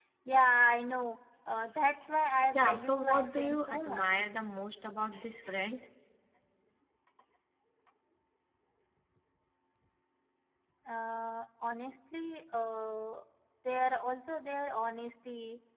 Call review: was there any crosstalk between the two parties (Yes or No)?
Yes